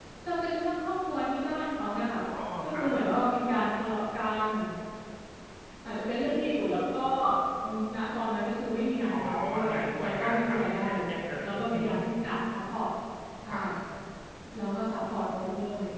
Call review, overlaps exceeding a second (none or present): present